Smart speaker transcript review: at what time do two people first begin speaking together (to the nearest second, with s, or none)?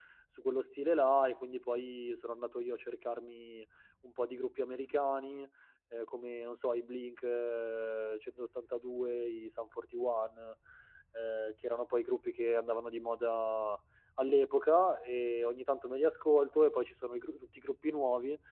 none